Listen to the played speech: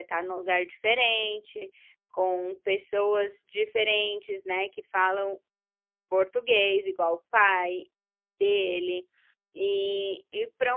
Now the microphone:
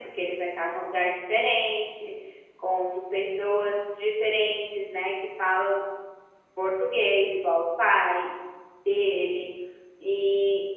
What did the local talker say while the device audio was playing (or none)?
none